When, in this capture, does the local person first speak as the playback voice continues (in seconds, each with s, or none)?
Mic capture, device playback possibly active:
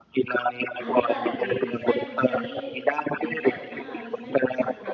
0.8 s